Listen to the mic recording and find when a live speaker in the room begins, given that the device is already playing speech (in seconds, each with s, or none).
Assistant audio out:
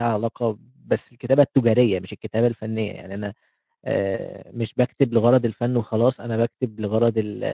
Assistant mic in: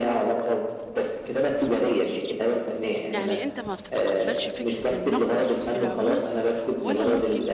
3.1 s